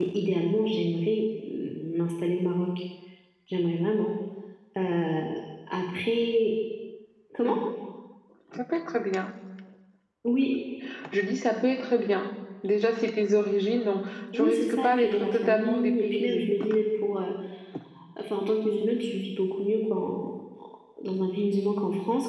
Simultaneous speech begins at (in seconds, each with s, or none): 14.3 s